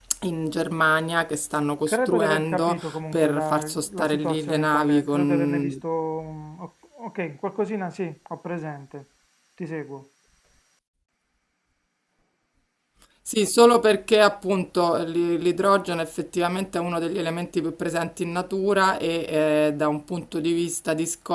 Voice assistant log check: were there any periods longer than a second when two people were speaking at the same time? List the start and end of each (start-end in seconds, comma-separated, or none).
1.9-5.8